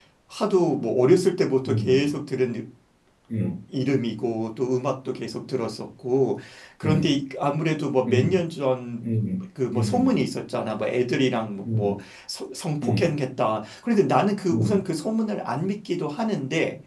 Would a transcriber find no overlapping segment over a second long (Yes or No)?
Yes